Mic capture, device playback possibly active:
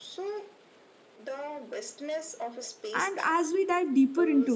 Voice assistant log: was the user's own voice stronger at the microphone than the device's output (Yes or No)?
Yes